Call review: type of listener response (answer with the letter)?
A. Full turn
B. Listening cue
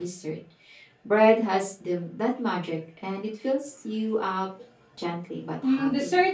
A